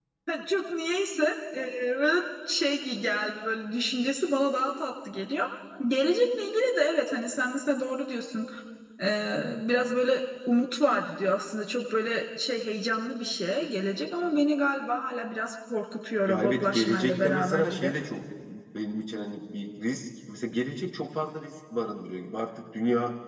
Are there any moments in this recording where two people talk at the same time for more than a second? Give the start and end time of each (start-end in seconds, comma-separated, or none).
16.3-17.9